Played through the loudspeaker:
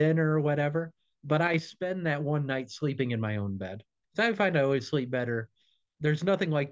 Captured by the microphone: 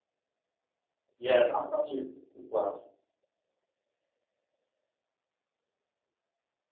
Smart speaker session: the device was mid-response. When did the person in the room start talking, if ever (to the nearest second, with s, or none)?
1 s